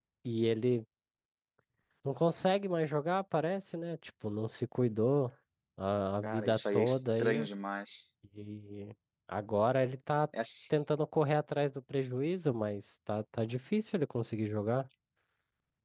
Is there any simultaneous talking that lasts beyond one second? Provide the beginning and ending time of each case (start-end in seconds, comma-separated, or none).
6.2-7.5